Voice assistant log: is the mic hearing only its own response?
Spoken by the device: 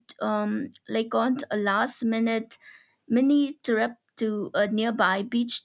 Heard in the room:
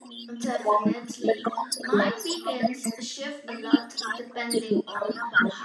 No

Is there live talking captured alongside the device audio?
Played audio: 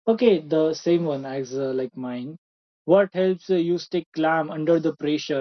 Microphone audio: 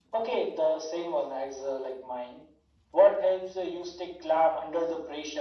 No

